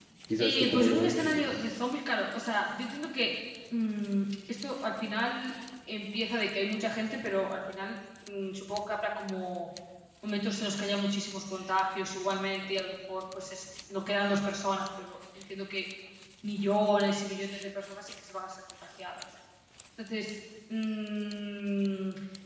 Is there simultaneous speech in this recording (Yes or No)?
Yes